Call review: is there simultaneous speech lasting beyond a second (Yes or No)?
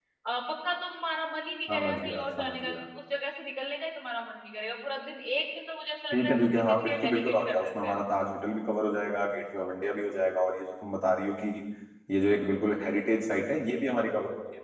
Yes